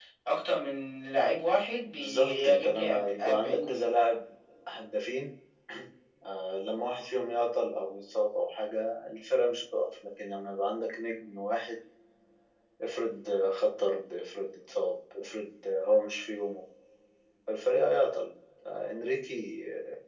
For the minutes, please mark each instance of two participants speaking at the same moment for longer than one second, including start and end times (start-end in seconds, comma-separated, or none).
1.9-3.9